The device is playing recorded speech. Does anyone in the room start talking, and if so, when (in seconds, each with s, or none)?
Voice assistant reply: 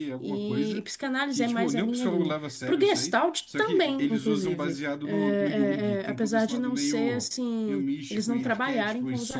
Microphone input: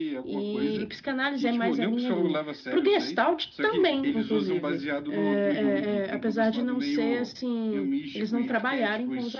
none